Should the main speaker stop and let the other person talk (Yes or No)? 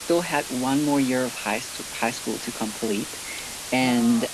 No